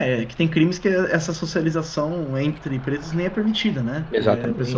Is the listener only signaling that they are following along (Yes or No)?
Yes